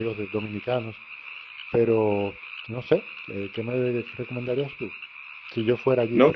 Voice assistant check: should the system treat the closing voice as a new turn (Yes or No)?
Yes